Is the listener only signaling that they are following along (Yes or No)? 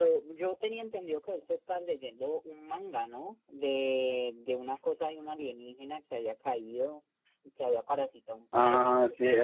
No